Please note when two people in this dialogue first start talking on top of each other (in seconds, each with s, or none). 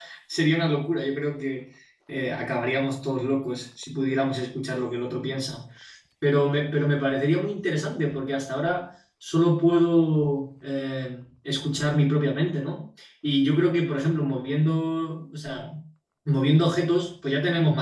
none